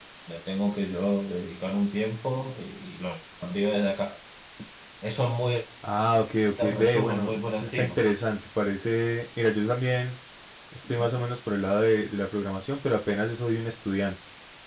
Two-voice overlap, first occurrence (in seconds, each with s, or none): 6.6 s